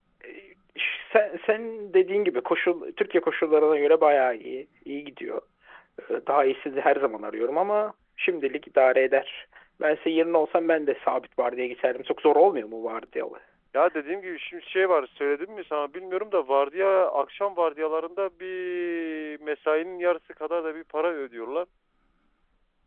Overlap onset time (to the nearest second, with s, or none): none